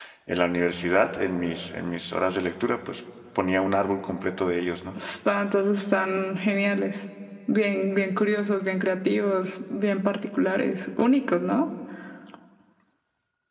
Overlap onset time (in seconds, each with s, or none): none